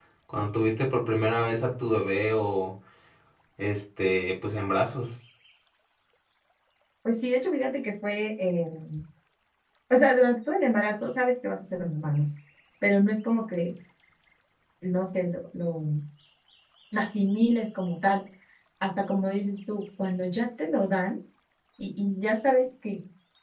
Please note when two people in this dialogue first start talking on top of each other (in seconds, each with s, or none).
none